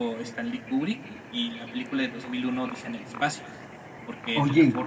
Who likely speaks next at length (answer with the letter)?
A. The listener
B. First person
B